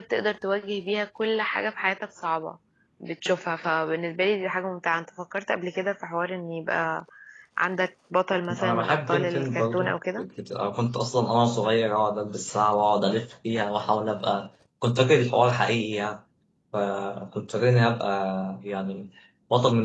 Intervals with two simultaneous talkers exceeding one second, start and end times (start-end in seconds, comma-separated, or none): 8.5-10.2